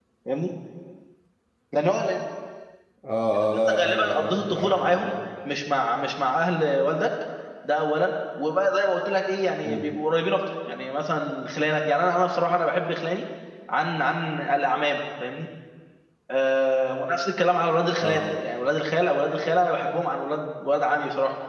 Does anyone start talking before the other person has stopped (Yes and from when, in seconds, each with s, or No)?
Yes, from 3.7 s